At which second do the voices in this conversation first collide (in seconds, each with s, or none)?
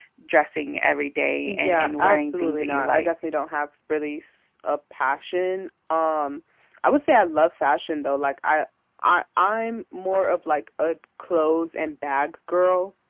1.4 s